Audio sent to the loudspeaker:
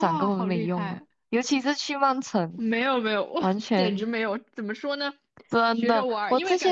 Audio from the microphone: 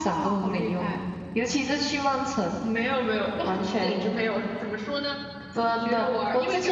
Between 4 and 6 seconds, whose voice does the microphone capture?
echo only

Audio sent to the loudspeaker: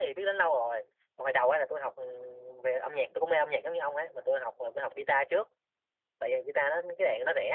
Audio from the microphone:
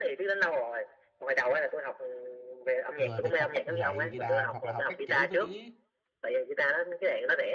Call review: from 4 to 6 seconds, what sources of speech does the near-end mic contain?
both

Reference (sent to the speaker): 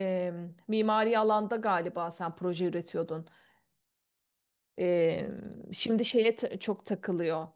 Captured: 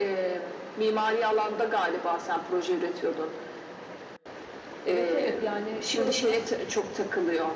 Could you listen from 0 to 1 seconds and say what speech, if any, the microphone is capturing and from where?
echo only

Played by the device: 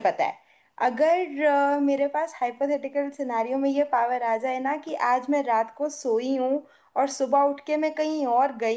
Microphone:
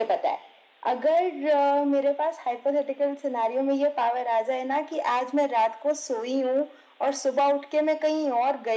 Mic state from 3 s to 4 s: echo only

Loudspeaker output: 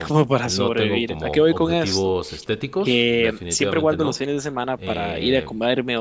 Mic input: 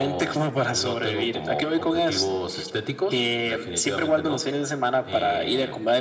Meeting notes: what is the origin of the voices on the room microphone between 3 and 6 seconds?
echo only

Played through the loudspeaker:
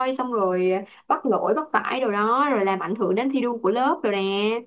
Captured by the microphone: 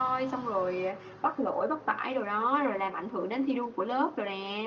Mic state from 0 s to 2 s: echo only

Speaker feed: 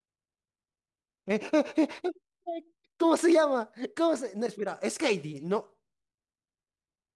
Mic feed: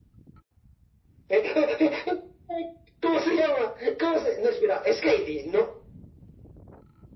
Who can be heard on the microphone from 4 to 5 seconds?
echo only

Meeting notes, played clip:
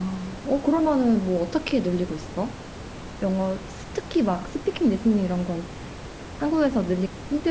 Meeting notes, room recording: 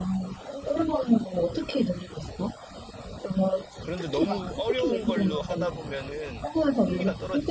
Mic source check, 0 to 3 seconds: echo only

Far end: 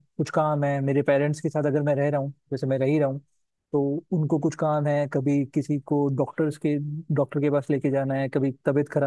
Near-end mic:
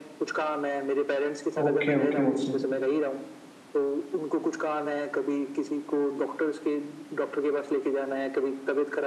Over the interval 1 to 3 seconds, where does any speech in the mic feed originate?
both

